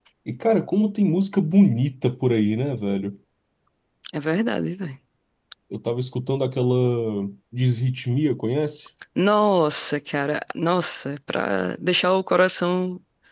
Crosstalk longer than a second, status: none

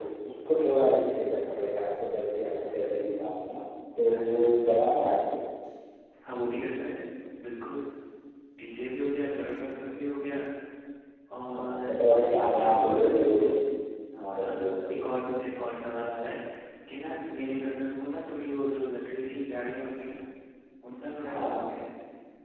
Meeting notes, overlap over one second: present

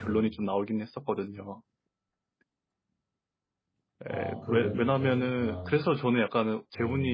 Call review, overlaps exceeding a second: present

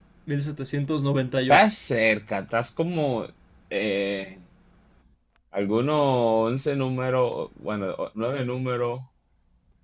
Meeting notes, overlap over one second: none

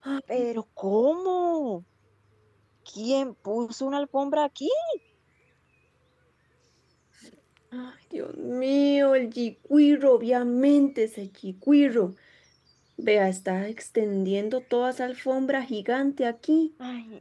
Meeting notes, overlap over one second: none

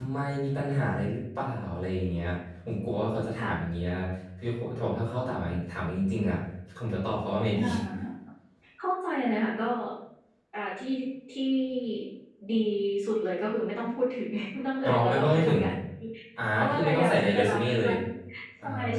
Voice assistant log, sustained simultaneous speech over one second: present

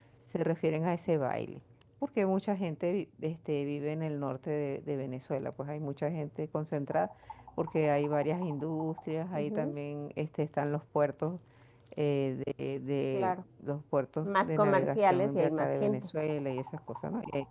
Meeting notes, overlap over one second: present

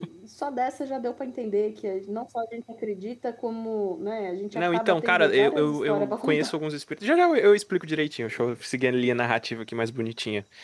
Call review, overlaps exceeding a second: present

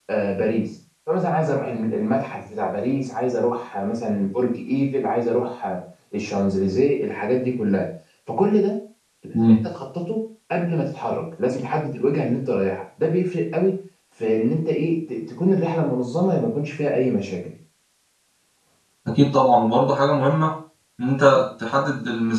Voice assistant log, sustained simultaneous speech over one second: none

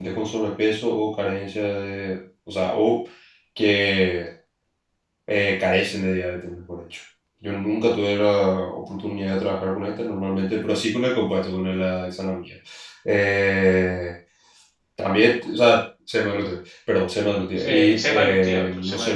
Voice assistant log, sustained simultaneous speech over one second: present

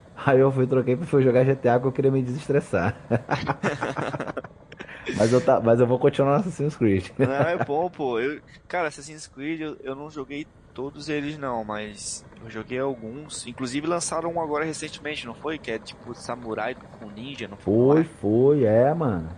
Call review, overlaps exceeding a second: none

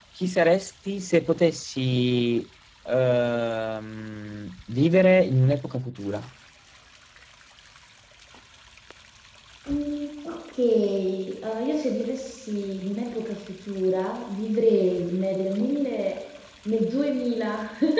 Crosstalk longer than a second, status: none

